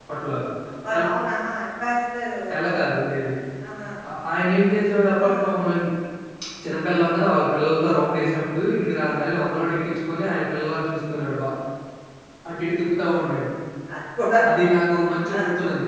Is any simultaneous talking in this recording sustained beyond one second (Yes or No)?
No